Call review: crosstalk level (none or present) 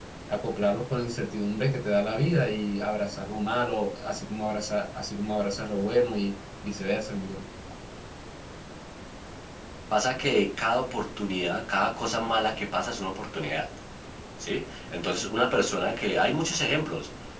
none